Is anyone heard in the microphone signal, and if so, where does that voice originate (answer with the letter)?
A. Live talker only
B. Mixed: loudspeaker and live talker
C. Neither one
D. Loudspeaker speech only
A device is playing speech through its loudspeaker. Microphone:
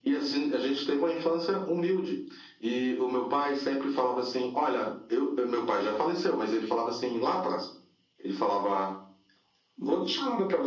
D